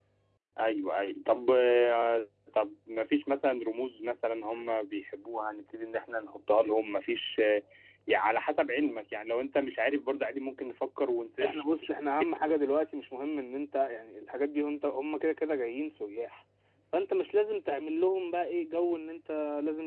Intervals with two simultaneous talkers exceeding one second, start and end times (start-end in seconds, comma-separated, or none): none